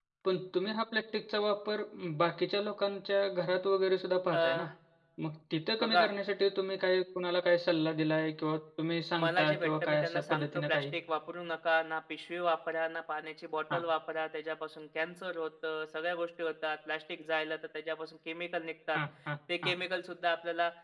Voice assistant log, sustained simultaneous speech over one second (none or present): present